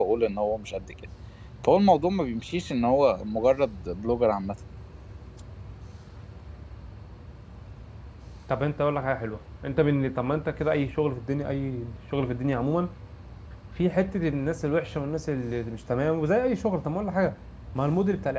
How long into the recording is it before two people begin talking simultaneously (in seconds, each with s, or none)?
none